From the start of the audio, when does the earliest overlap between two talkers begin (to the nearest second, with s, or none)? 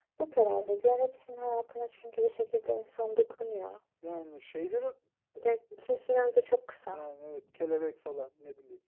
none